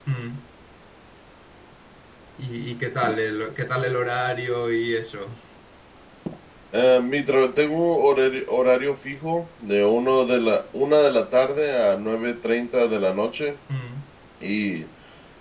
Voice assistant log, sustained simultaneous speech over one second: none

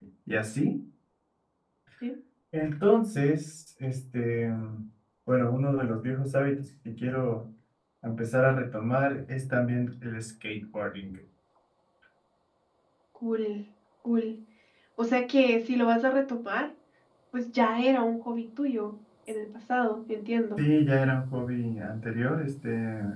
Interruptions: none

